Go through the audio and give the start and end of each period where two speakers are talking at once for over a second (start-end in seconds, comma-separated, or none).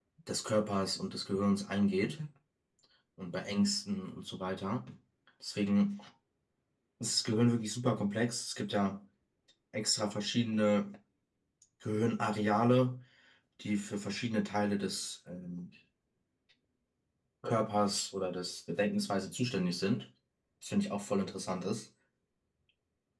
none